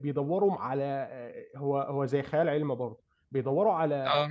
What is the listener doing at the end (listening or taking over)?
listening